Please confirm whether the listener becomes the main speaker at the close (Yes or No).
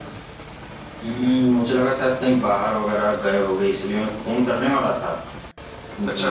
No